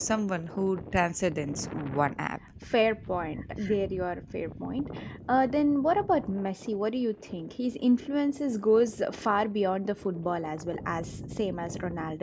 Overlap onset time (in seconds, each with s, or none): none